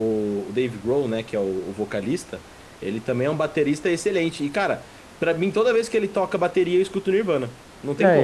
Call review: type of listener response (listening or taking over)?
taking over